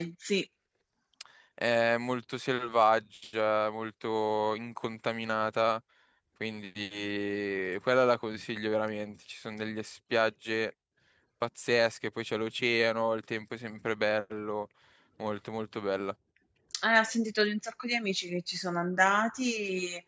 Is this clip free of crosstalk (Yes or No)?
Yes